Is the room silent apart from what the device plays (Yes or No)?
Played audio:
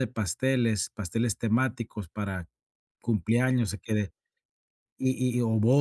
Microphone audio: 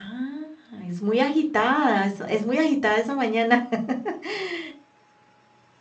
No